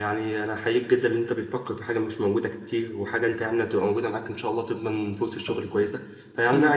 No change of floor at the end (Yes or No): Yes